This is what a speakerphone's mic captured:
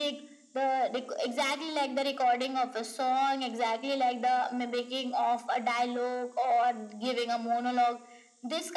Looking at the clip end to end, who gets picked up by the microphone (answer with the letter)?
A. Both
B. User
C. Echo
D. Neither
C